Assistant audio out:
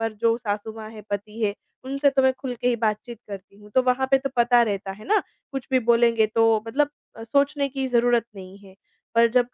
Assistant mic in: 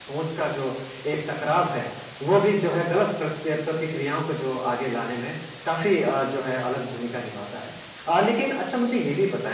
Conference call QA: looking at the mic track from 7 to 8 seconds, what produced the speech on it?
user only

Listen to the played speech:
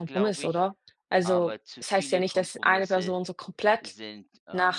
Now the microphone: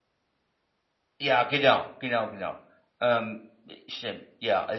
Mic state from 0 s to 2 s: user only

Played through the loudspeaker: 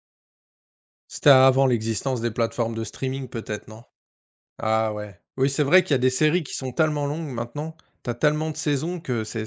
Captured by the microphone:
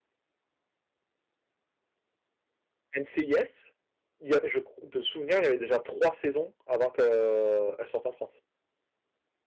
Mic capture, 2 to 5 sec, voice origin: user only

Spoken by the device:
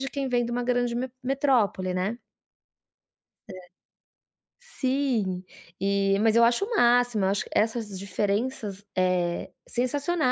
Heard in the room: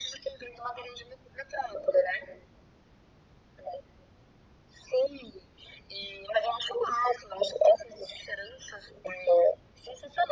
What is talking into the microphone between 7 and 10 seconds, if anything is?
echo only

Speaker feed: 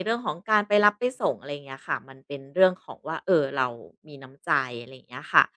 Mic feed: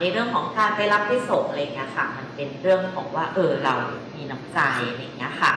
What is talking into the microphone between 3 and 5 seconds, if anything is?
echo only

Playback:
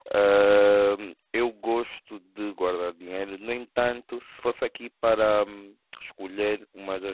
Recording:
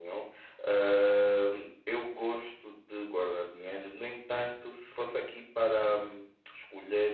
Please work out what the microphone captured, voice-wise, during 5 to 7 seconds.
echo only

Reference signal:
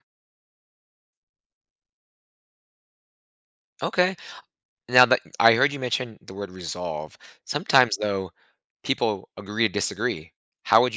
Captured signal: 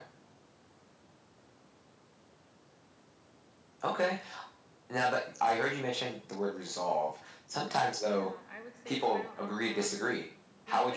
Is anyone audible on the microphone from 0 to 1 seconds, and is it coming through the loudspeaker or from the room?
neither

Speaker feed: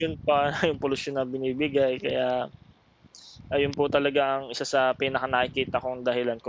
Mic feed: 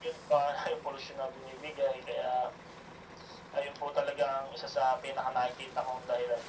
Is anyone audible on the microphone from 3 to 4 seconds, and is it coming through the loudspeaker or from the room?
echo only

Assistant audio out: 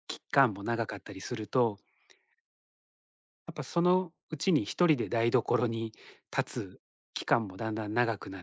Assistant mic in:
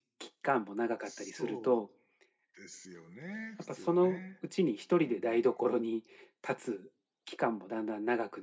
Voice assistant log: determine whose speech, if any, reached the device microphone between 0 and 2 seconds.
both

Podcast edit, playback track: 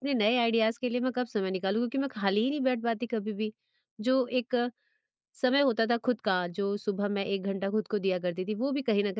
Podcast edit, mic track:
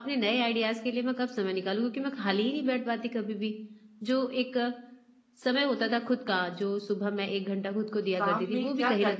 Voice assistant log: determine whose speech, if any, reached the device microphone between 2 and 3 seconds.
echo only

